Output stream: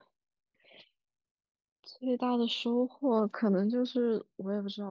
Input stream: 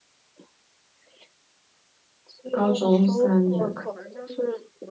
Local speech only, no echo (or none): 高中三年